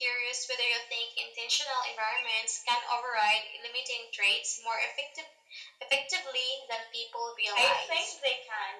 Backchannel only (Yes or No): No